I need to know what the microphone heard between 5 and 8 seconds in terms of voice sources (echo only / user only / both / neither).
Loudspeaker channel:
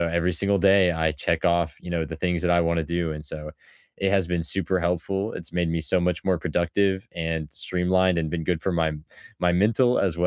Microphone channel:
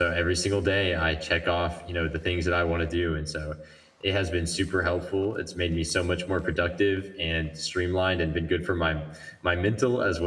echo only